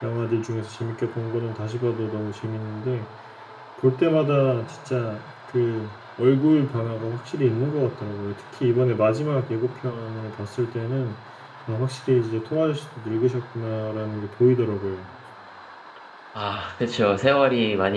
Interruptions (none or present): none